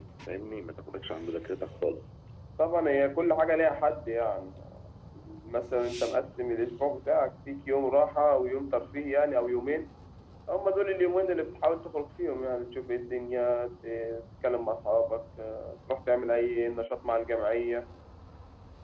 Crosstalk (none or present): none